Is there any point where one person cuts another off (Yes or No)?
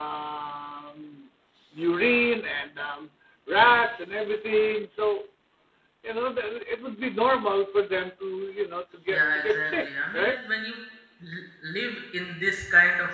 Yes